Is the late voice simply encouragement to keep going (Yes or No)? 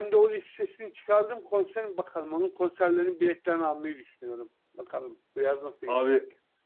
No